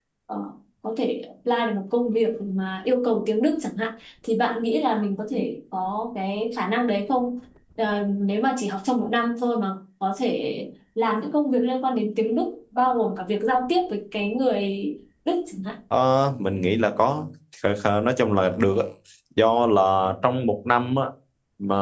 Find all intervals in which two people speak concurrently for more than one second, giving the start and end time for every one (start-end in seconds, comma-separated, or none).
none